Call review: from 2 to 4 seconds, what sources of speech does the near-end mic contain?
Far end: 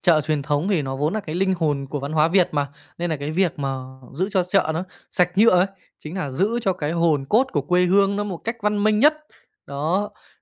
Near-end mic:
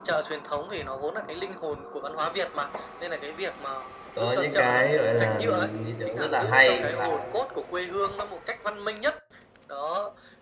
echo only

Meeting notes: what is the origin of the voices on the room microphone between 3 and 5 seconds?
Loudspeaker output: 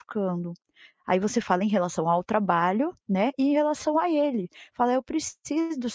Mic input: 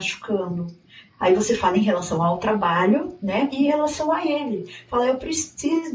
echo only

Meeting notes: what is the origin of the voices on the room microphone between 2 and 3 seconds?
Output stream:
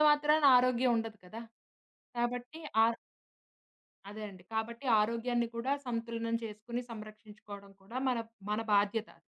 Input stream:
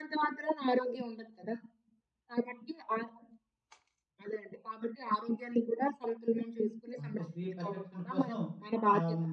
echo only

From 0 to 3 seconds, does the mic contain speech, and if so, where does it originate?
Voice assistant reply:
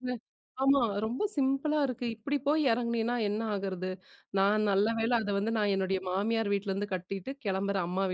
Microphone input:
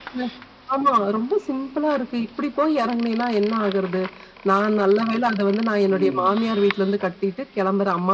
echo only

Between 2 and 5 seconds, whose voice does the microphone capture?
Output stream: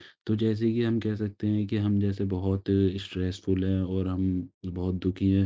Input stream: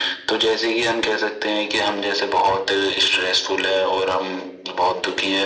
echo only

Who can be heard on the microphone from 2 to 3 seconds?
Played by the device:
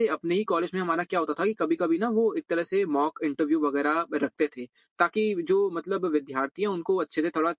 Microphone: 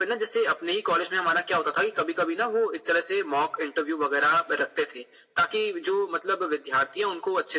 echo only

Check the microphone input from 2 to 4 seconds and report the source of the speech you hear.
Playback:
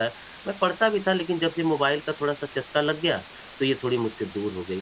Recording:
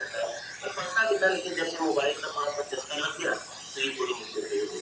echo only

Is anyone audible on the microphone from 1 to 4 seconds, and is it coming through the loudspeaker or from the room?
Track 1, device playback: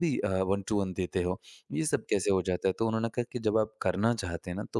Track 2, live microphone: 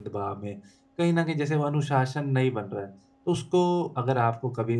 user only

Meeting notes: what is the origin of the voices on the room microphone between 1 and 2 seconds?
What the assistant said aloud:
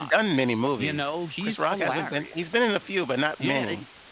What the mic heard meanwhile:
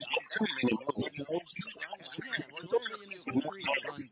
echo only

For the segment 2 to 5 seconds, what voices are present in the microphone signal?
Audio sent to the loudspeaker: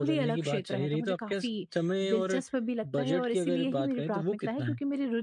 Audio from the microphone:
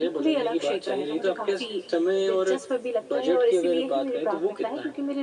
echo only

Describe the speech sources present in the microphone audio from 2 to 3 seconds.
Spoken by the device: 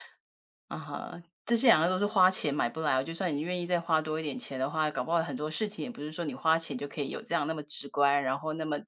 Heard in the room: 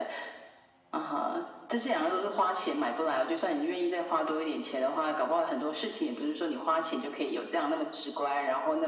echo only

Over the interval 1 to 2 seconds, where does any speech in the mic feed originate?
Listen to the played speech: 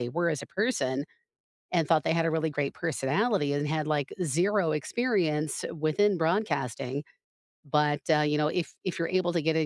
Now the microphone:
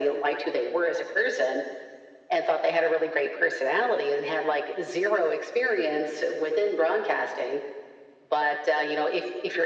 echo only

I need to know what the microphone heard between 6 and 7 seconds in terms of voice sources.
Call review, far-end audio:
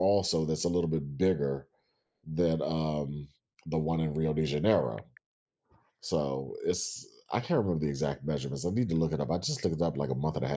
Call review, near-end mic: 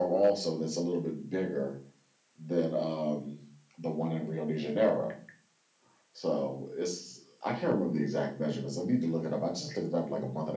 echo only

